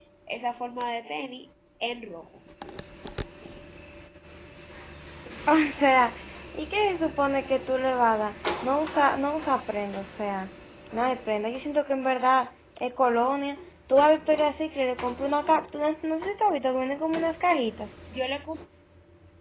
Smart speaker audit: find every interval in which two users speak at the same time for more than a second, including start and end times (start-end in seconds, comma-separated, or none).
none